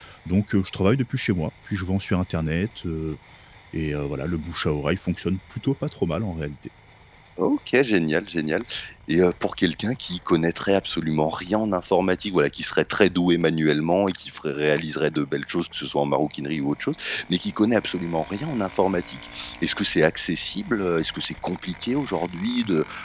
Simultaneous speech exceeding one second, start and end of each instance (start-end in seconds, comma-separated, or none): none